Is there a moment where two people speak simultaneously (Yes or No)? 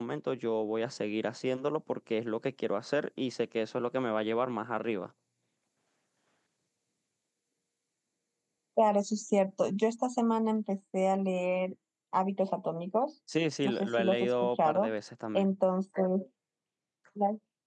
Yes